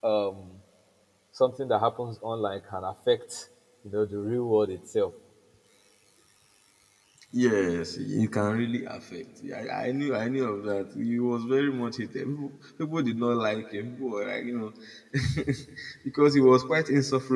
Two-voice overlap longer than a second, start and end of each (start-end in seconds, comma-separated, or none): none